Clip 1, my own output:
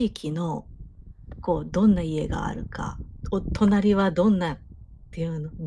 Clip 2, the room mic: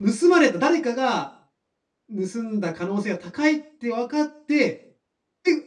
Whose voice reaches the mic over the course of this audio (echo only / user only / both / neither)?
user only